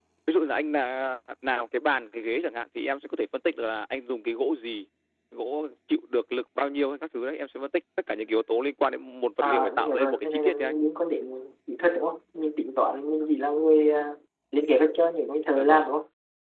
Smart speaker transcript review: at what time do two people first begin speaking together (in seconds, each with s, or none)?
9.4 s